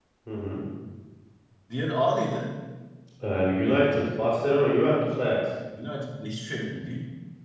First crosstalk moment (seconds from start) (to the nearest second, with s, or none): none